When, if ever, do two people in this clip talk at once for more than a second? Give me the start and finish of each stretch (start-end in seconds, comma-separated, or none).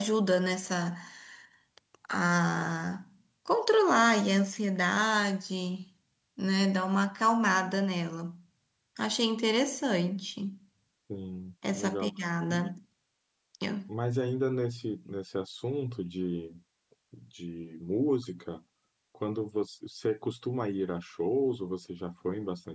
none